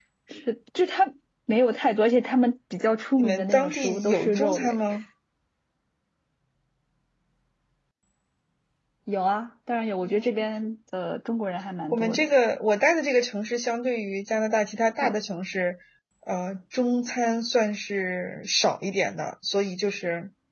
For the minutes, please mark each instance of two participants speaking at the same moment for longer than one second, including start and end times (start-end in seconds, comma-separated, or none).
3.2-4.8